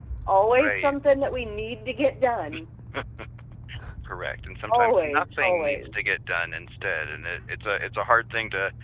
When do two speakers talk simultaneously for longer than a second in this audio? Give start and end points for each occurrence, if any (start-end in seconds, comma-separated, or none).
4.7-5.9